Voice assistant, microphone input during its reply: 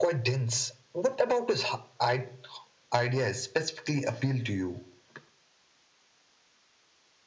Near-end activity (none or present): none